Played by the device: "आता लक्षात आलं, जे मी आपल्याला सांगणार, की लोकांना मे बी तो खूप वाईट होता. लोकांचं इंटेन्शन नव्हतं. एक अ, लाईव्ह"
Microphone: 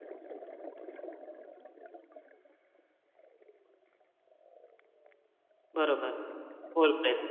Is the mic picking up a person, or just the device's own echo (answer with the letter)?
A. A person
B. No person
A